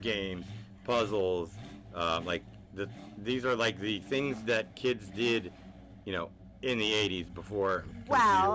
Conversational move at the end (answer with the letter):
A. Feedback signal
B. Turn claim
B